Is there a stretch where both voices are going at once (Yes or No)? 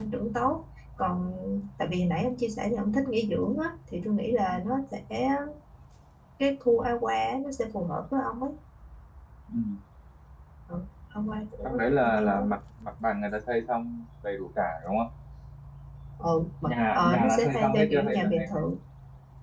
Yes